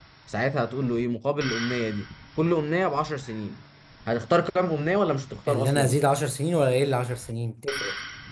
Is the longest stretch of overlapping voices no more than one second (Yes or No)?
Yes